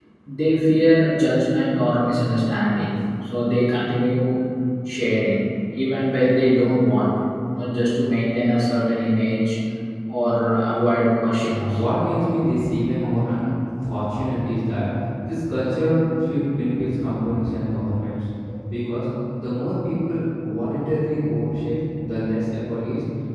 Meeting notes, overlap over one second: none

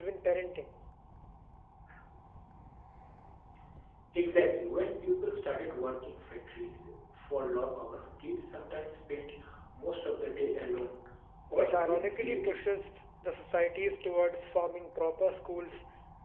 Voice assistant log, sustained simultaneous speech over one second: present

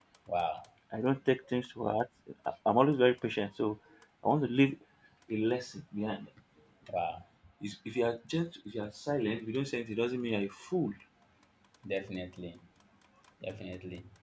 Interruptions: none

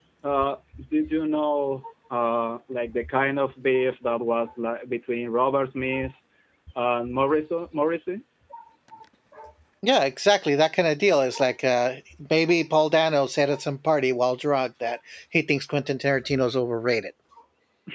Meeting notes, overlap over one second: none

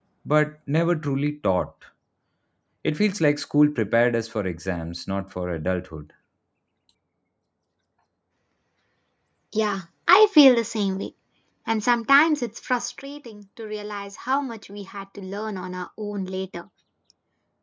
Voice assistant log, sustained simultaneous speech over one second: none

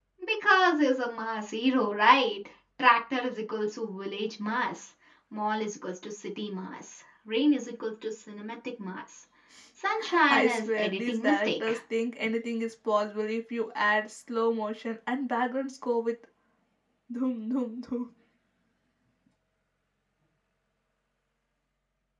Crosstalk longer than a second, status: present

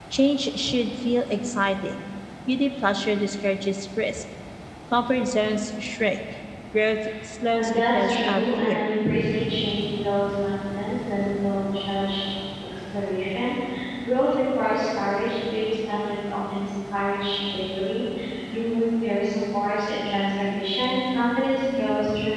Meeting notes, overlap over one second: present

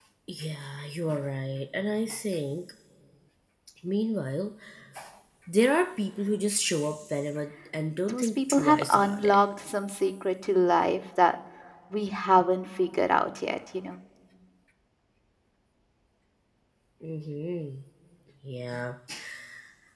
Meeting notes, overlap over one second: present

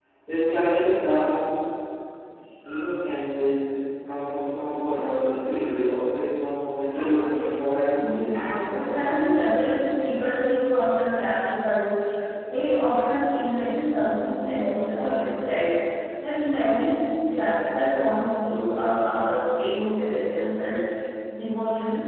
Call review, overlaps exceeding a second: none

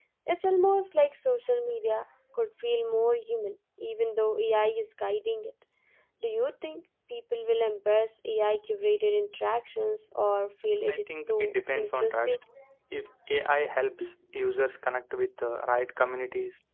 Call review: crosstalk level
present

